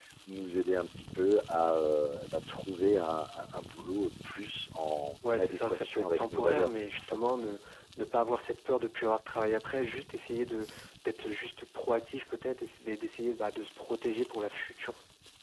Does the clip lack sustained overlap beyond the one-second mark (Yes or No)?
No